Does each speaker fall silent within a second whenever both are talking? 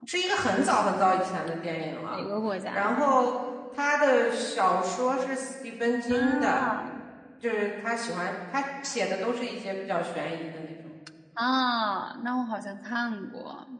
Yes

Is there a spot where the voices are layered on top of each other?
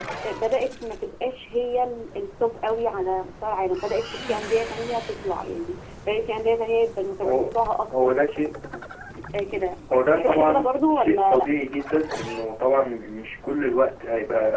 Yes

